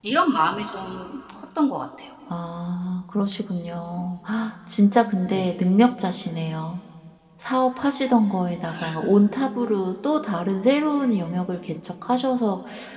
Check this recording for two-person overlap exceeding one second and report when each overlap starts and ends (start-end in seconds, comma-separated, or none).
none